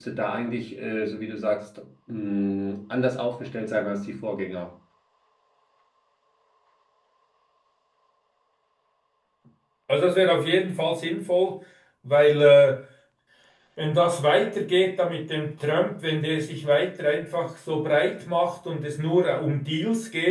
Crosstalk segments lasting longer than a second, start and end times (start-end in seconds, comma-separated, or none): none